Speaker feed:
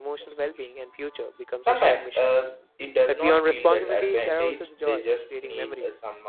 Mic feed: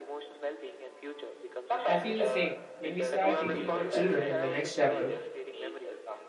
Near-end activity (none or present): present